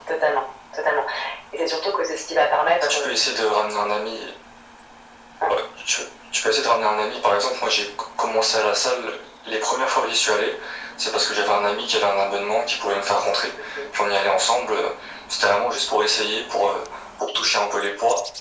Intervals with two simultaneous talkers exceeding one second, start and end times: none

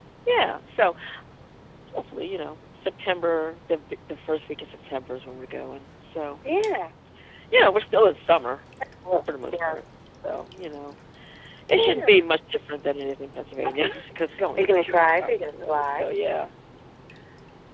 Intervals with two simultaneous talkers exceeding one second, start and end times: 14.6-16.1

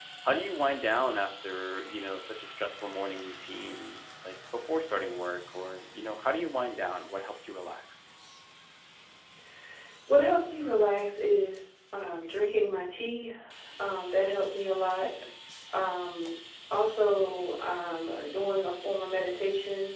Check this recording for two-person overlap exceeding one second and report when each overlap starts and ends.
none

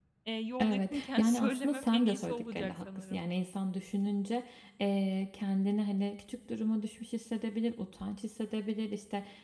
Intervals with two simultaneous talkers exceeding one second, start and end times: 0.6-3.2

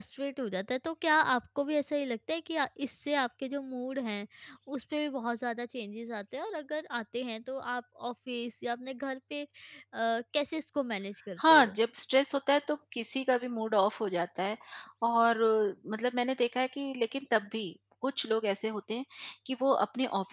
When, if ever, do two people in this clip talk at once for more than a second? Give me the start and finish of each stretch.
none

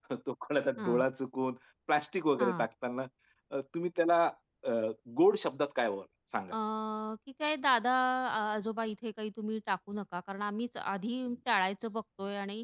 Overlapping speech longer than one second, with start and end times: none

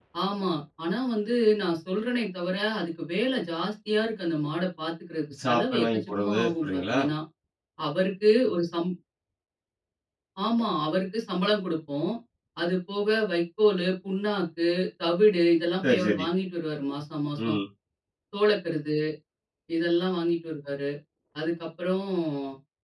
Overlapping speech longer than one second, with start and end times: 5.5-7.0

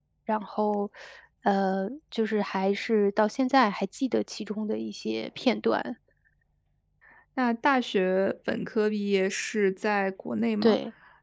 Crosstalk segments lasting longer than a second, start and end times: none

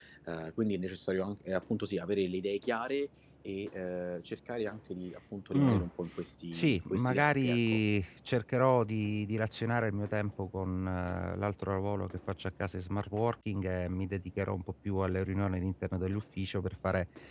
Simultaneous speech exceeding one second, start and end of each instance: 6.5-7.8

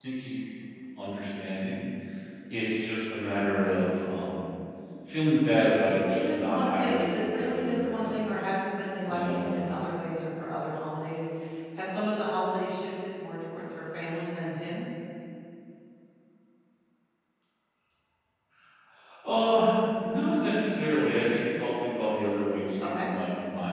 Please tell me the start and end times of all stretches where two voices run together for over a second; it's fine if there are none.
6.1-8.3

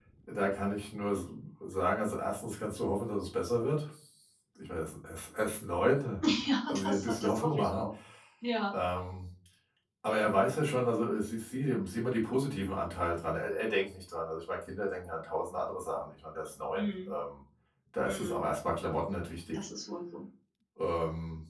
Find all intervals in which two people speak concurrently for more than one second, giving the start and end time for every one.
6.7-7.9

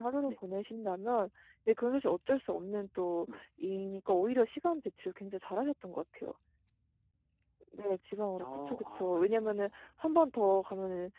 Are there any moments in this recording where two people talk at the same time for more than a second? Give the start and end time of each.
8.4-9.9

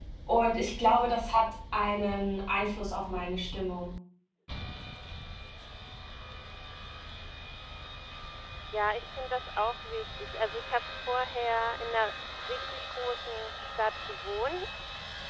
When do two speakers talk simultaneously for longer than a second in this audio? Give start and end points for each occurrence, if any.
none

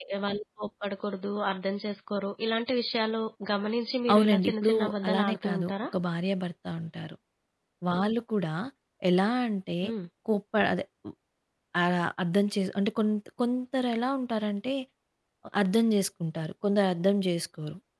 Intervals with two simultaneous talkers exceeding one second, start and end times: 4.1-5.7

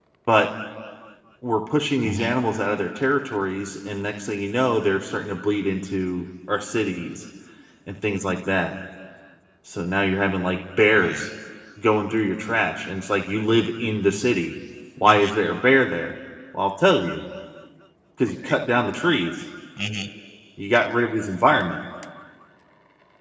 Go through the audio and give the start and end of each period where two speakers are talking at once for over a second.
none

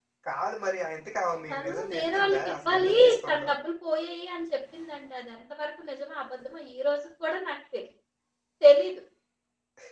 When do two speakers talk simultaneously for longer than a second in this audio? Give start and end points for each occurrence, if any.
1.5-3.5

